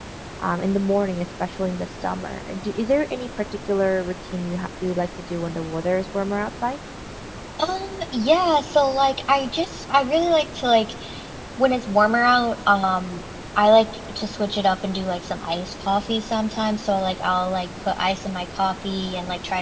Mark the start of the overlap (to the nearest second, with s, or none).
none